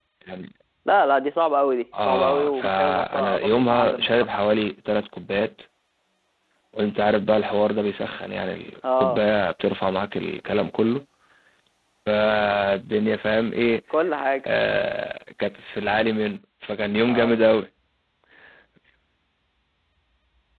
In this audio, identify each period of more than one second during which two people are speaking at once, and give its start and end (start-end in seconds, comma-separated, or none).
2.0-4.3